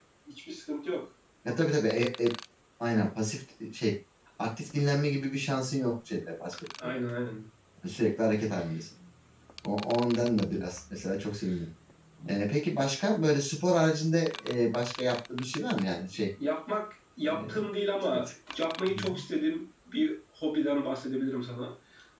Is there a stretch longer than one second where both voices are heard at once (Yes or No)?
No